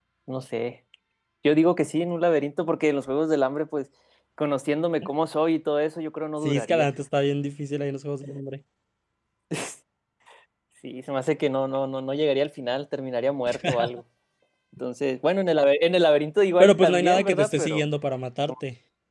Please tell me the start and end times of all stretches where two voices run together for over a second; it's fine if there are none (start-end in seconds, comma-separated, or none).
16.6-17.8